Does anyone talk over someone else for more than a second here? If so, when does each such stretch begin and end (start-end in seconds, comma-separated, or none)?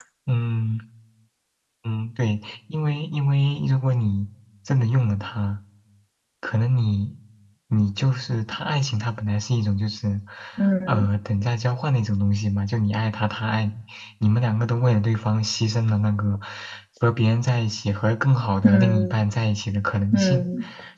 none